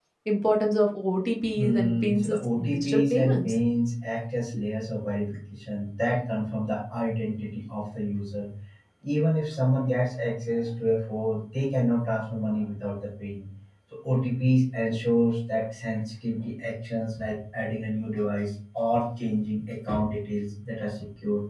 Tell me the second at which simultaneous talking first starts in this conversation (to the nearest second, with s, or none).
2 s